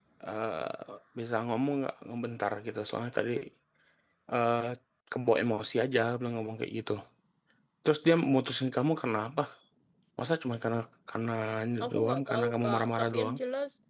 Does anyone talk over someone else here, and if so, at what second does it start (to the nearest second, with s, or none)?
12 s